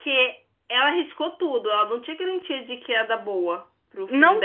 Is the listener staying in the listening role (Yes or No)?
No